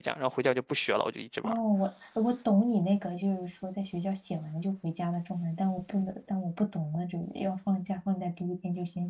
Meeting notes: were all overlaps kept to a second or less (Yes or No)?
Yes